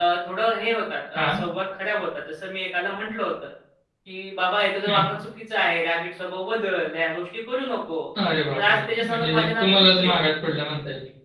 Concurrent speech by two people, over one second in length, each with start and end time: 8.5-10.1

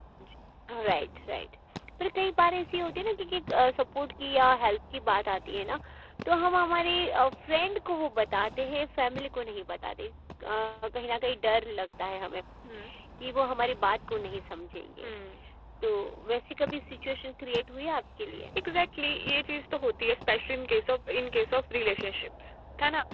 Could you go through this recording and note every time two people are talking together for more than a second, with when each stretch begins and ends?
none

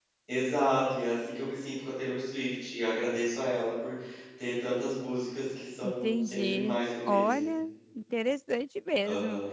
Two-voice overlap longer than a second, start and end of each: 5.8-7.5

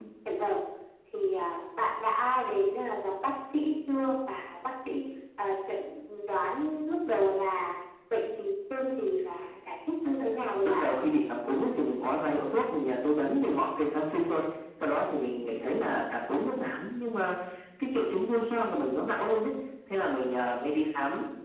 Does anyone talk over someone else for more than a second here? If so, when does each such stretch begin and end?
none

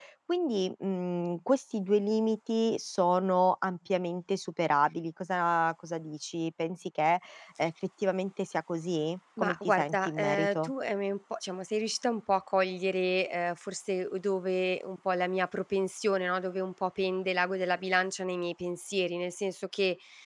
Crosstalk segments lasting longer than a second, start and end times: 9.4-10.7

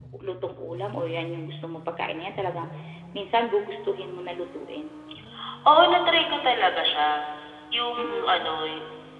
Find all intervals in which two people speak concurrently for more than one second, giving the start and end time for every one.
none

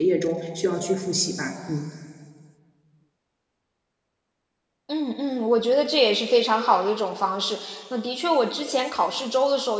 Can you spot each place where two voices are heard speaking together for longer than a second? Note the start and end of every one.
none

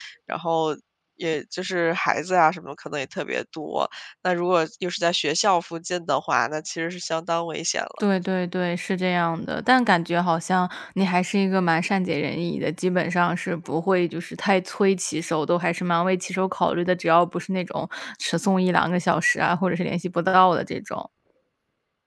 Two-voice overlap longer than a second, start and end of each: none

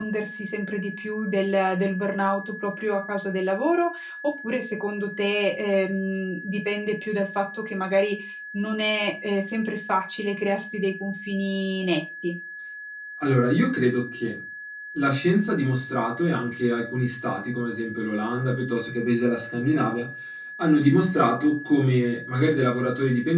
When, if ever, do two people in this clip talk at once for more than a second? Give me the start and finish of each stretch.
none

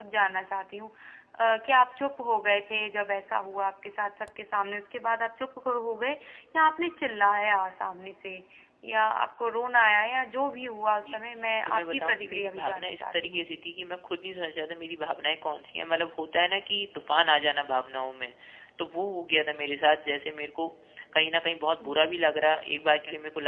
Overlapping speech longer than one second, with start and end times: 11.6-13.6

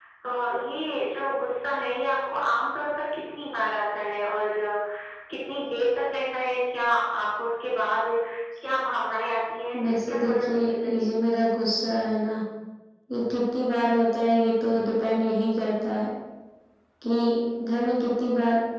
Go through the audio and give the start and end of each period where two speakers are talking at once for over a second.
9.8-11.1

